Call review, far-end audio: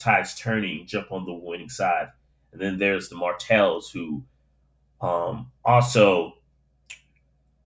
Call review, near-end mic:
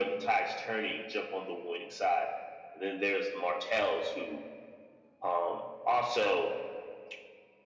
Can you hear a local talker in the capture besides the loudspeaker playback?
No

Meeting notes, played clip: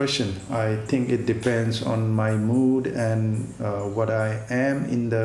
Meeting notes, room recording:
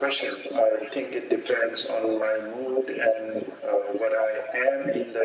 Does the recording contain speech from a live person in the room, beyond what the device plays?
No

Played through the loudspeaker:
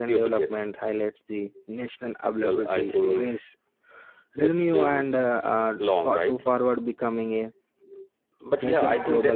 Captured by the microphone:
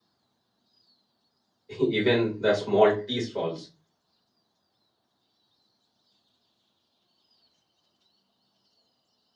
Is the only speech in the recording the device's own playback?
No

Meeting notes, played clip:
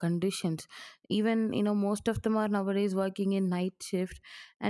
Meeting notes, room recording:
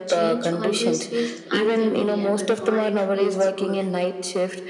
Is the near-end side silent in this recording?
No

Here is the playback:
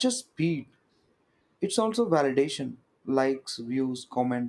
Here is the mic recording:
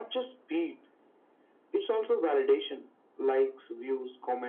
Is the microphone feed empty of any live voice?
Yes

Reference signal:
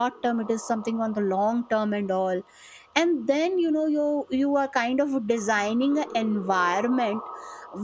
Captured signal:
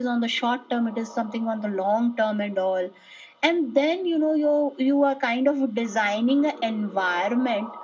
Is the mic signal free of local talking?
Yes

